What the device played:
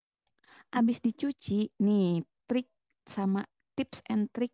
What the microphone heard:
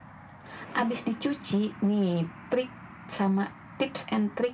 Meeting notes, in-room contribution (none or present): none